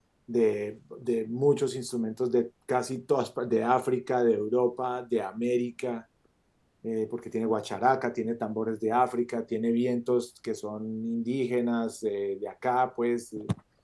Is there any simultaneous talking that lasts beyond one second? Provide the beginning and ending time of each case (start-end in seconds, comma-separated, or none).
none